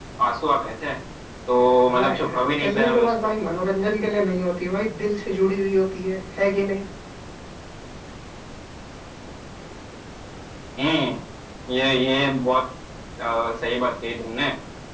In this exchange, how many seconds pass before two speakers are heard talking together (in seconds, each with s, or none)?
1.9 s